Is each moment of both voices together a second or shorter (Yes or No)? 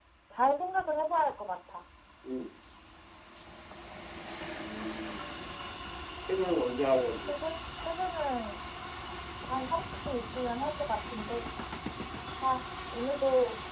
Yes